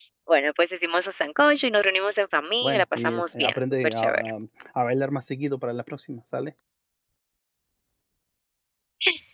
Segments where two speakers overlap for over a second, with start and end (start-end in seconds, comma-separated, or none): 2.6-4.3